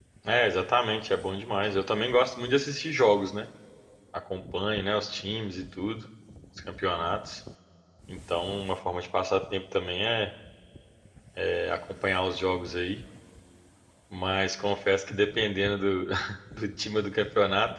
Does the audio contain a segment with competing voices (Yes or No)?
No